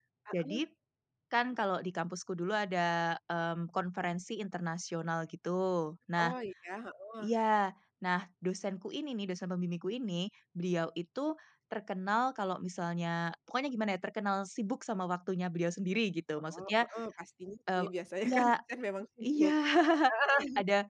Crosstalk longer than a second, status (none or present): none